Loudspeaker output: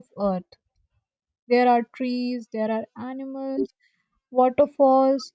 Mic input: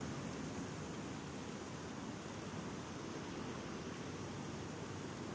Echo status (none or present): none